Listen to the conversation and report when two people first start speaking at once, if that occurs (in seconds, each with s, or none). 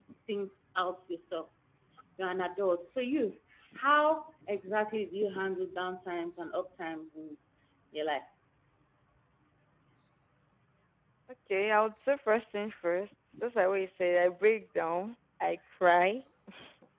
none